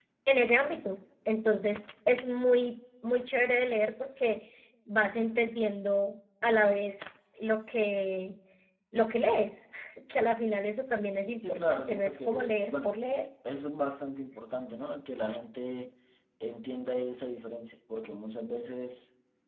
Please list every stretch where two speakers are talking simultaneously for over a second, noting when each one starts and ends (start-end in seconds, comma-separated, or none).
11.4-12.9